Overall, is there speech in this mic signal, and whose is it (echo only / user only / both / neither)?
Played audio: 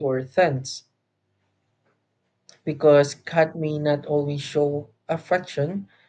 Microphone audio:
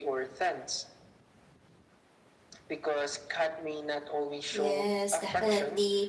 both